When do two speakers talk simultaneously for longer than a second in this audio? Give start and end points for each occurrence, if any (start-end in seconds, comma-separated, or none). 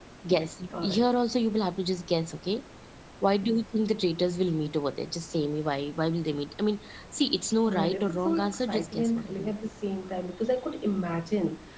7.7-9.5